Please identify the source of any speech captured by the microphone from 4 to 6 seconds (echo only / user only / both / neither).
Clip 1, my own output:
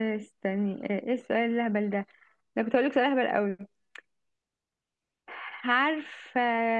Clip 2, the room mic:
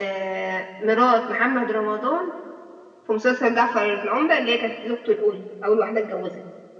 user only